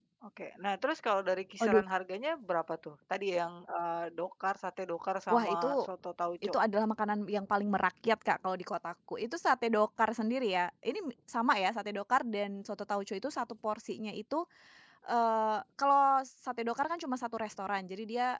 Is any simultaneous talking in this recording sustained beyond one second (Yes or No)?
No